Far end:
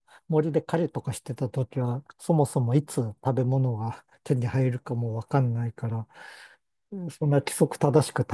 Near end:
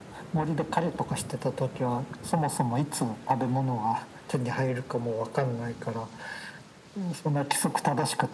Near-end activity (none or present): none